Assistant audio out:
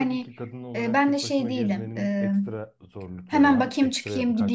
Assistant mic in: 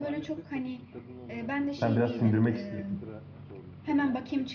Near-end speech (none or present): present